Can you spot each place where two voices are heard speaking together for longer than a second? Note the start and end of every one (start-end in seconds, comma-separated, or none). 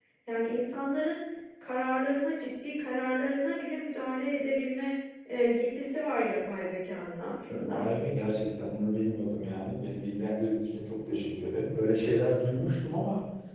none